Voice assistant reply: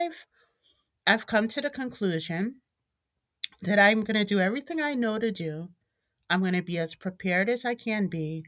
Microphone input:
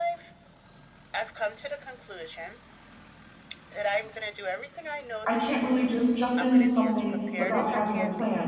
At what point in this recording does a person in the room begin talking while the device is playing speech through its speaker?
5.2 s

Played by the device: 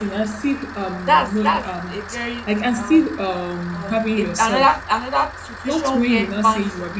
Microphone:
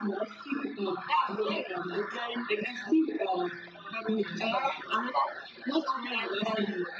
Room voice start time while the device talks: none

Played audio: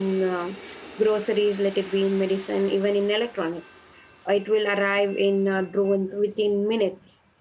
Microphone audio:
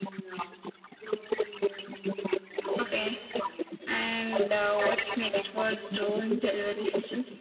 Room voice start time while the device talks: 2.8 s

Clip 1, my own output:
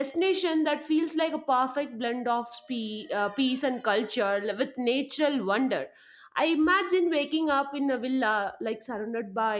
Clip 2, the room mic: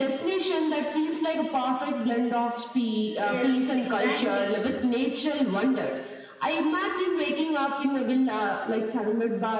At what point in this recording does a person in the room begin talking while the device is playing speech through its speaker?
3.2 s

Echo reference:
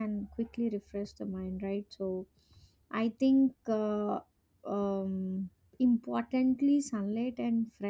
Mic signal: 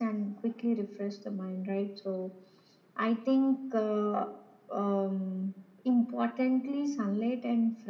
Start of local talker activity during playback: none

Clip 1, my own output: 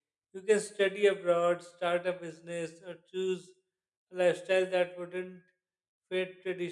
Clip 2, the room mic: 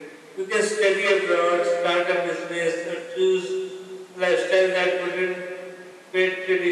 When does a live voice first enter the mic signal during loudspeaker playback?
none

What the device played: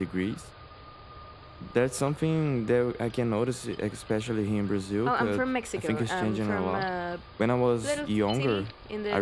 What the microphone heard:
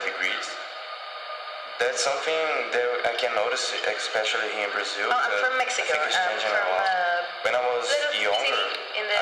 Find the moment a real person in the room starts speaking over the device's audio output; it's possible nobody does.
none

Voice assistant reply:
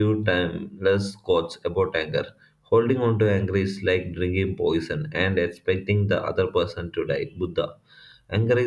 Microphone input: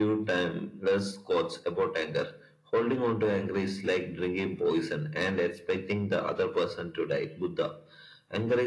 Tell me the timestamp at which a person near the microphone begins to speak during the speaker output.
none

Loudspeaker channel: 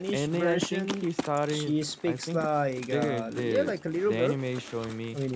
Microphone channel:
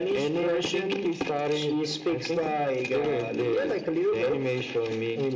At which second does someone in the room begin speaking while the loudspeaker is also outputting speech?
none

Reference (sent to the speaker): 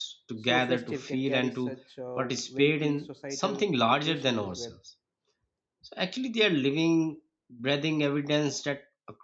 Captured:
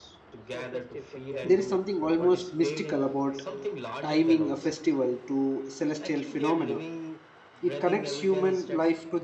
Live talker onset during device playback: 1.4 s

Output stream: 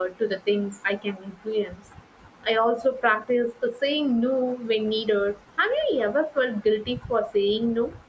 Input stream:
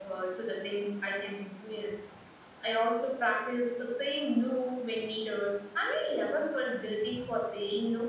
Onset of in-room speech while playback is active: none

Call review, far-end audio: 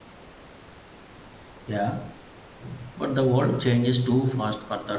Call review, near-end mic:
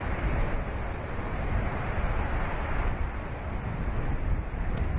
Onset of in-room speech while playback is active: none

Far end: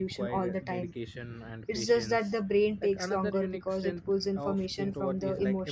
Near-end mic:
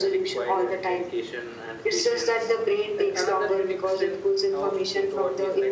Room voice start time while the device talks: none

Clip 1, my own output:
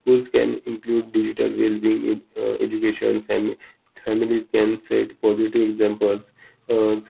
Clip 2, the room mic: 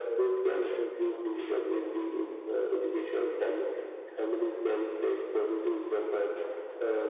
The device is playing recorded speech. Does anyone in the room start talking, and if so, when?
none

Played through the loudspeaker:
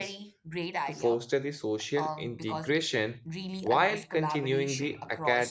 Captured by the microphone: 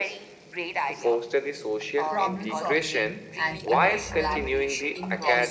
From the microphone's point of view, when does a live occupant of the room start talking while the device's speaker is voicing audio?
2.1 s

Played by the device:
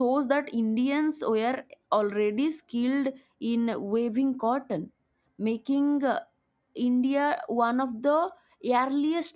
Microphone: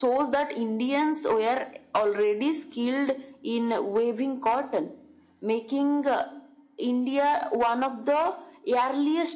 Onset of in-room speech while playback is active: none

